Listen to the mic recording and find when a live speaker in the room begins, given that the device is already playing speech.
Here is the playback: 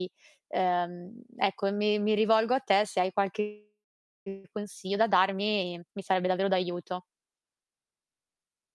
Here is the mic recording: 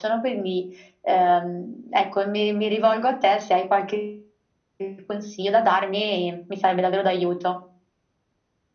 none

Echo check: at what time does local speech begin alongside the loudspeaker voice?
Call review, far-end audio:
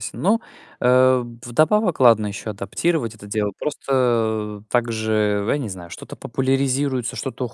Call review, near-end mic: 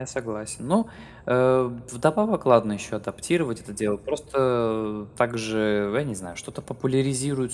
none

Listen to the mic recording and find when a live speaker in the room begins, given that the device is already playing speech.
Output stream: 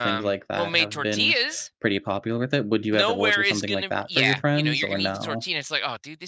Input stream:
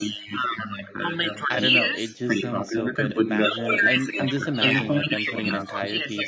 1.5 s

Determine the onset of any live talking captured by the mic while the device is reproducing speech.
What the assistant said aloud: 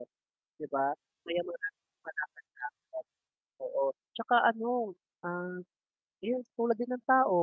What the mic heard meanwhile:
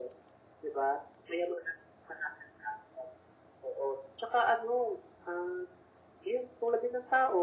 none

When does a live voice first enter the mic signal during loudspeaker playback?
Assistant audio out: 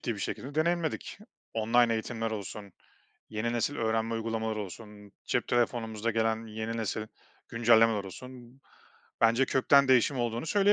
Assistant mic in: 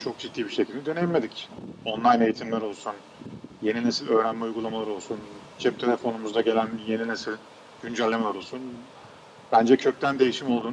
none

